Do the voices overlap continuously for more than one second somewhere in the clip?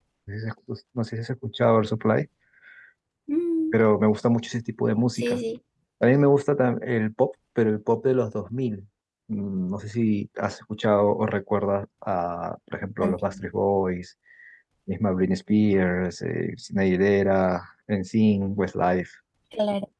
No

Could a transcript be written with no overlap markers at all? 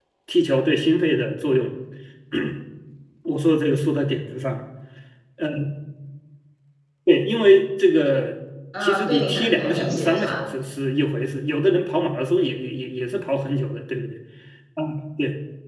No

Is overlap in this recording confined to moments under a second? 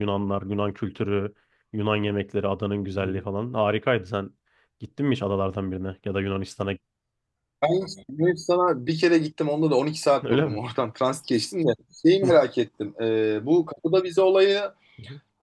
Yes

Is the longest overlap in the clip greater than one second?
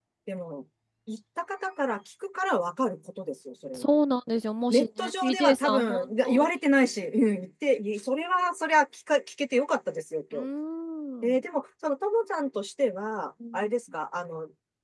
Yes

